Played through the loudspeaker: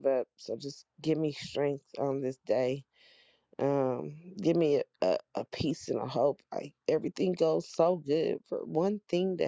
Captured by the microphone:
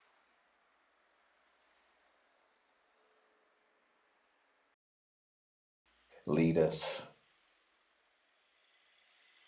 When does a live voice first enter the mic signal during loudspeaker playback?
6.2 s

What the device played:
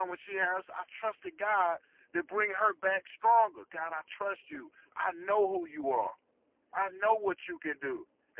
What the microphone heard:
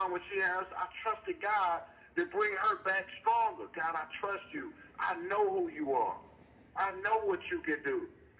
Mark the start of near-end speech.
none

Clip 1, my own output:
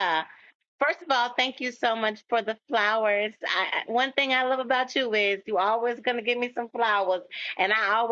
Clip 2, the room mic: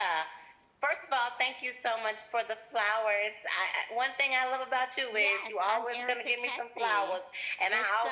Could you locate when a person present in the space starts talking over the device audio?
5.1 s

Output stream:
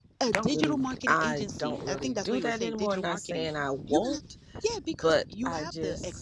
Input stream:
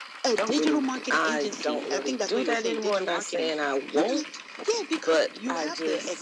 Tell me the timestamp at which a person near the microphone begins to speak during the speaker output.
none

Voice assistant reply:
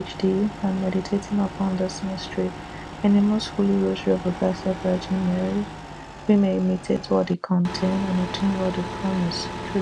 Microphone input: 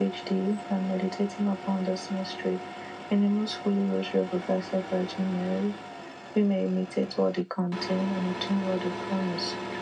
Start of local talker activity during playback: none

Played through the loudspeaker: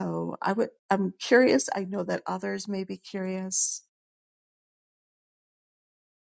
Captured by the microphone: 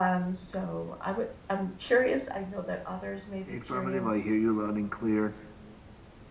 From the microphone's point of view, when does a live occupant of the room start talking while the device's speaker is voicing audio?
3.5 s

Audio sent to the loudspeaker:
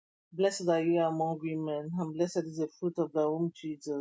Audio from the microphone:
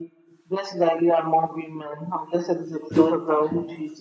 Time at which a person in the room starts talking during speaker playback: 2.9 s

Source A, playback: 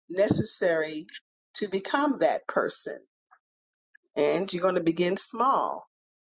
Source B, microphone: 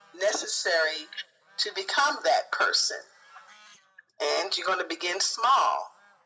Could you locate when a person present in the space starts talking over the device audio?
none

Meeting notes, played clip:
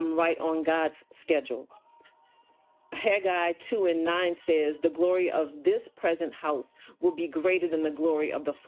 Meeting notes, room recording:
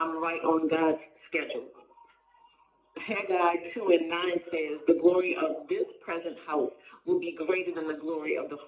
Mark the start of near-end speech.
none

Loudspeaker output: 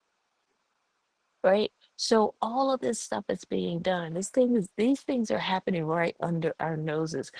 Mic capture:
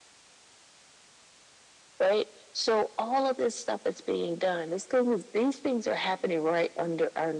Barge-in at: none

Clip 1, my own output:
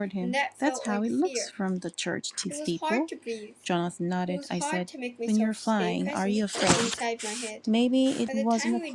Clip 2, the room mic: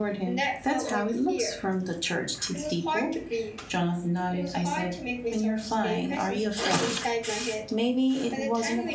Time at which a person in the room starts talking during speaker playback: none

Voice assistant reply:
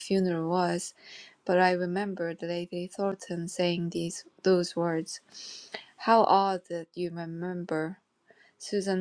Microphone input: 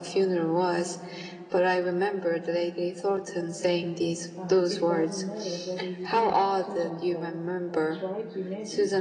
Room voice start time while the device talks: 4.3 s

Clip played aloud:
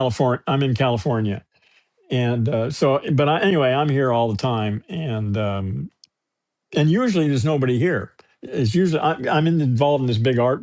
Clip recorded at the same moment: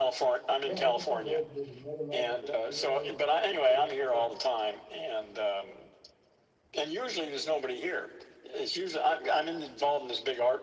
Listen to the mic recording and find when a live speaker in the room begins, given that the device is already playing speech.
0.6 s

